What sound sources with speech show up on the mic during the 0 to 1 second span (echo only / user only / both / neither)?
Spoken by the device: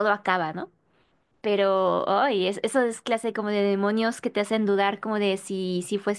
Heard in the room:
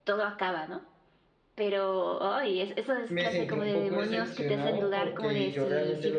echo only